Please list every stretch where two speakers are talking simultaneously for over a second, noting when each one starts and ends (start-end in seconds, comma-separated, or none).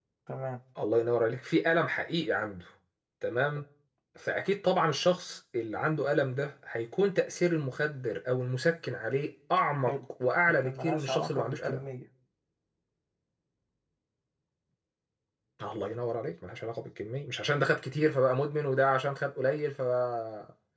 10.5-11.8